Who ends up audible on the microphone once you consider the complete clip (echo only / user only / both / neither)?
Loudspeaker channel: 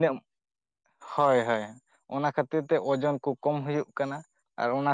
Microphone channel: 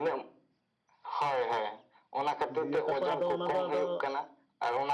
both